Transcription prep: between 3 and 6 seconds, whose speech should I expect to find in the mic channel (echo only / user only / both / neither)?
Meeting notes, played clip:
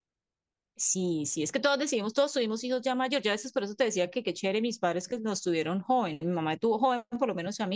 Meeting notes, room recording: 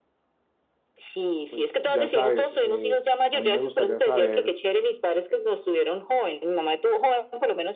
both